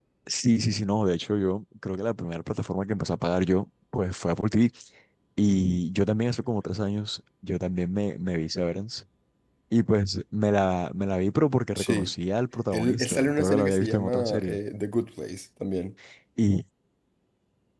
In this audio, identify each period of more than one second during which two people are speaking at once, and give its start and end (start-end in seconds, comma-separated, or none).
12.7-14.6